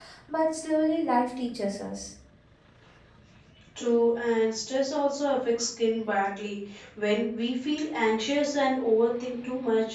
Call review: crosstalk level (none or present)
none